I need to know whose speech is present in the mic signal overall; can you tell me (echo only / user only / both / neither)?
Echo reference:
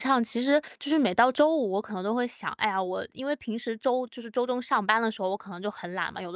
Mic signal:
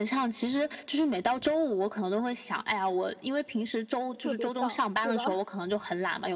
both